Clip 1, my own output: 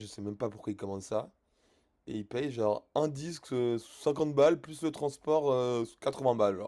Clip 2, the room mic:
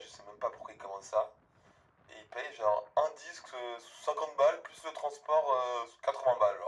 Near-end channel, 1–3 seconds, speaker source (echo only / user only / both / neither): echo only